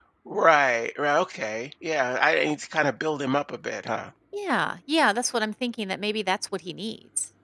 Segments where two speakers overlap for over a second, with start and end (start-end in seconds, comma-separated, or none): none